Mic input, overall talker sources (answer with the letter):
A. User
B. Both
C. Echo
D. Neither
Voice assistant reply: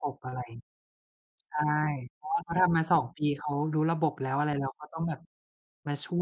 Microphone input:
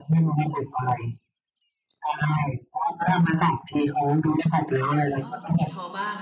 B